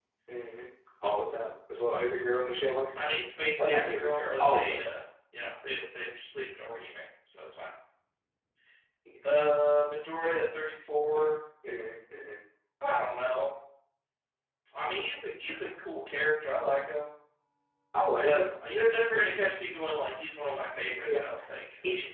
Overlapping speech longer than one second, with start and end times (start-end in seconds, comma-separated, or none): 3.6-5.0